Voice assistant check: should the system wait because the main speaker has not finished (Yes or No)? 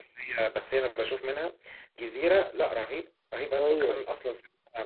Yes